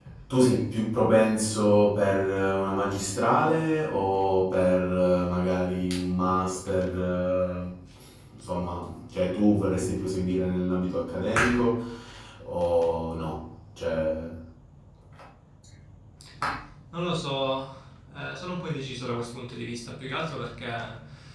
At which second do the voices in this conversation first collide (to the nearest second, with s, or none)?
none